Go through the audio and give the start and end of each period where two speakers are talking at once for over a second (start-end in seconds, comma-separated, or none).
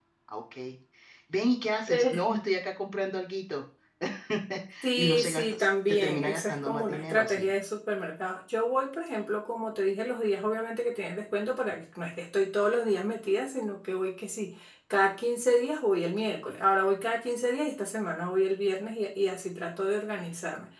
4.9-7.5